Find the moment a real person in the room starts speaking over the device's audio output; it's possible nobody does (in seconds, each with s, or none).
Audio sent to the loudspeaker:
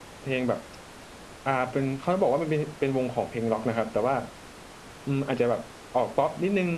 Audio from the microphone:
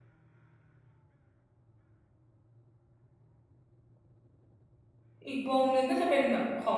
5.3 s